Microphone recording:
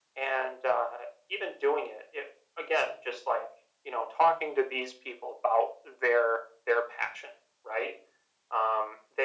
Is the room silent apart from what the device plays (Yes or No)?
Yes